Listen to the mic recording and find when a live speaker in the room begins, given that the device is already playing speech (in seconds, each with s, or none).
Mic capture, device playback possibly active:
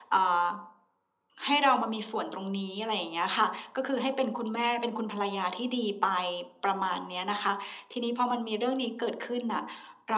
none